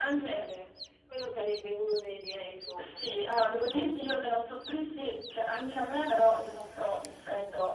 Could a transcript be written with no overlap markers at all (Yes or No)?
No